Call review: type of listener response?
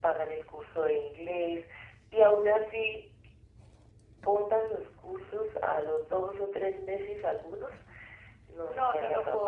taking over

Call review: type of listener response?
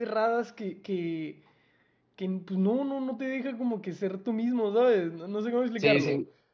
taking over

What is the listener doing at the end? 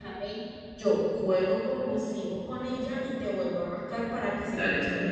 taking over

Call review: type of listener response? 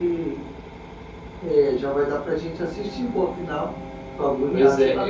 taking over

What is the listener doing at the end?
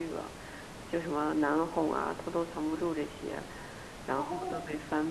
listening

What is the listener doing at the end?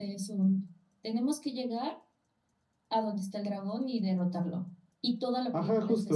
taking over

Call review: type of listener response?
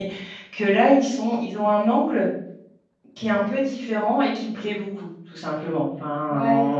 listening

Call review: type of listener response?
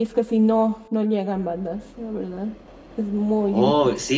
taking over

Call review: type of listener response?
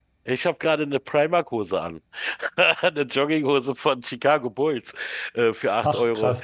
listening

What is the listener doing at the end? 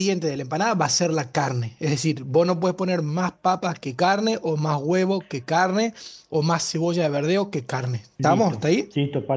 taking over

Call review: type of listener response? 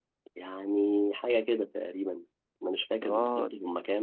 listening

